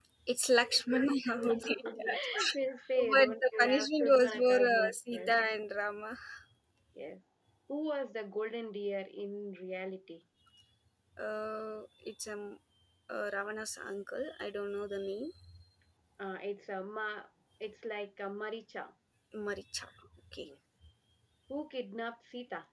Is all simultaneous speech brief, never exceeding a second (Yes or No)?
No